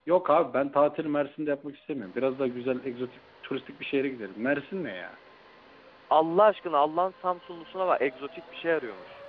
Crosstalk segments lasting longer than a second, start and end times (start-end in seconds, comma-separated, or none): none